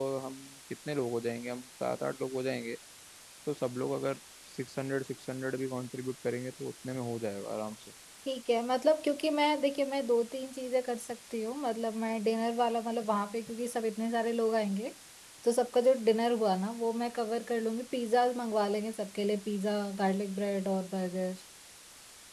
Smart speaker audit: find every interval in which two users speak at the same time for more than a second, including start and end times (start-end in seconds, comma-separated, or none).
none